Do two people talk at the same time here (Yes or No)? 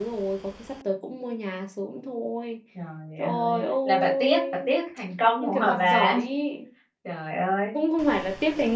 Yes